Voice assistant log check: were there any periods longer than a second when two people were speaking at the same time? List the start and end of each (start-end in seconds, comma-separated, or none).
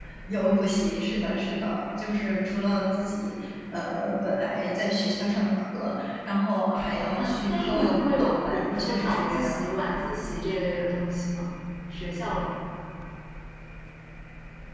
7.2-9.7